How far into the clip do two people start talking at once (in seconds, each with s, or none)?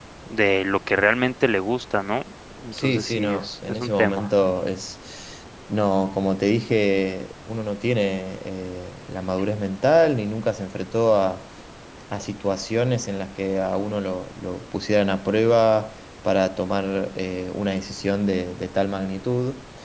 2.7 s